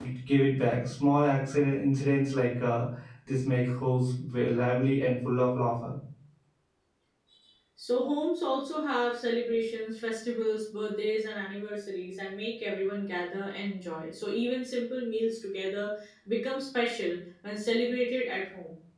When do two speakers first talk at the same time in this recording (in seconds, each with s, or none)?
none